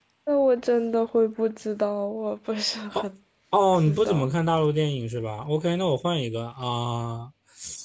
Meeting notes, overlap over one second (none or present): none